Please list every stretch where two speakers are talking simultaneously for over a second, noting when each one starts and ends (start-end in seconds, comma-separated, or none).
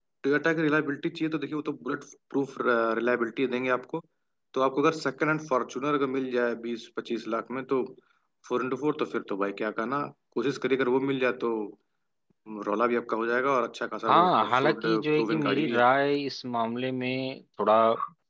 14.1-15.8